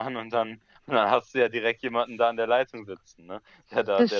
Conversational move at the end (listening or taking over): taking over